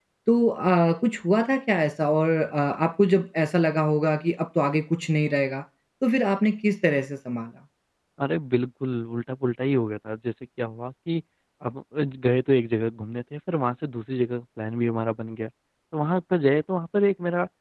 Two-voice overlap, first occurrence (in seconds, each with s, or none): none